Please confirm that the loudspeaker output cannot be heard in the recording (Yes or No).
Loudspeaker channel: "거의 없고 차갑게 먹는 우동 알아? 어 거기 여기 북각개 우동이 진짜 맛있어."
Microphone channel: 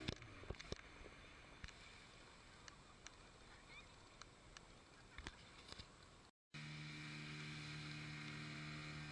Yes